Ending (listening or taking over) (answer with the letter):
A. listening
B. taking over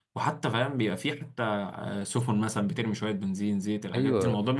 B